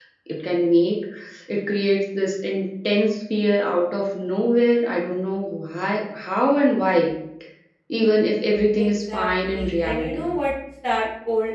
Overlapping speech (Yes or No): Yes